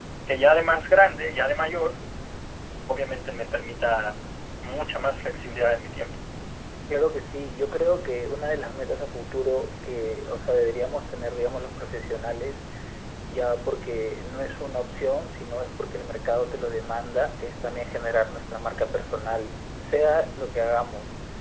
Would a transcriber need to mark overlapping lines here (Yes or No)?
No